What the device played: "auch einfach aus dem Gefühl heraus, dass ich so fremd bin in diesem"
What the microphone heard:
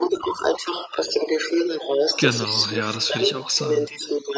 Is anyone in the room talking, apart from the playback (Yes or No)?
Yes